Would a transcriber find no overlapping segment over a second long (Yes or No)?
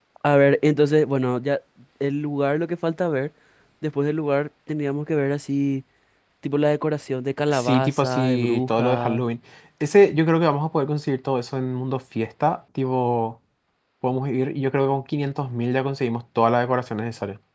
No